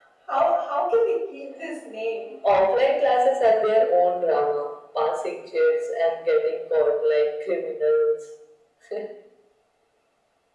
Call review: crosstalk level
none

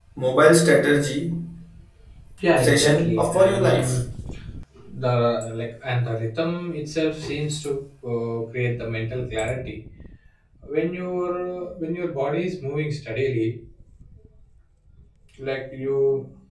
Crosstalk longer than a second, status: present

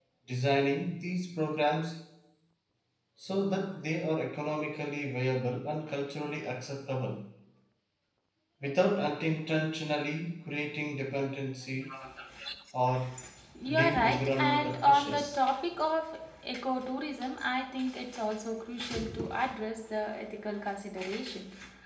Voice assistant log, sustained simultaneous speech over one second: present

